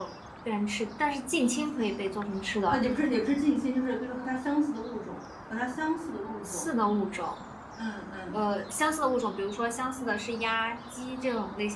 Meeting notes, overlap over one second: none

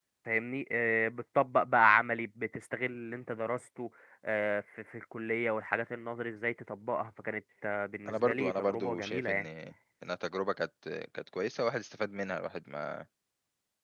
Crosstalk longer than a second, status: present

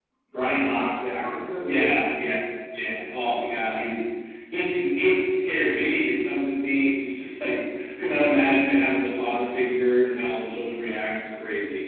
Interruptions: present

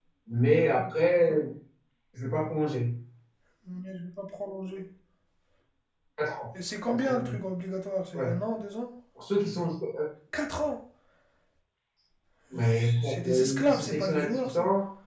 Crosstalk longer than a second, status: present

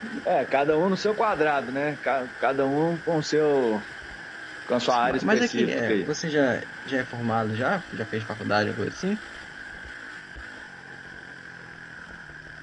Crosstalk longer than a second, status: present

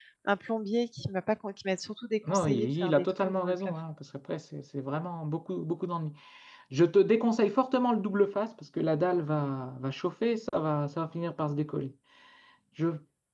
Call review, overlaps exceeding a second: present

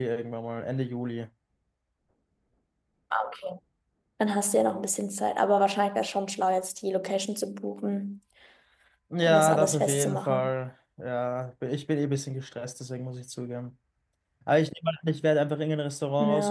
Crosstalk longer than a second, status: present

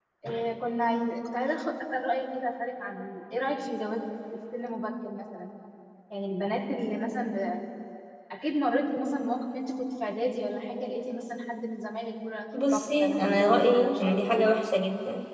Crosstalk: present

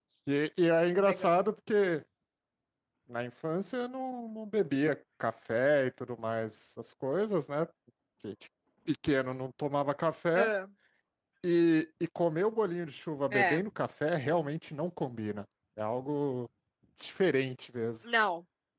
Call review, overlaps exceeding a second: none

